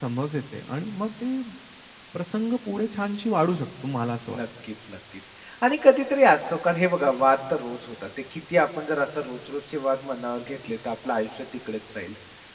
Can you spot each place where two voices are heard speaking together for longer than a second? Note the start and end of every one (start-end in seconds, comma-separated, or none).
none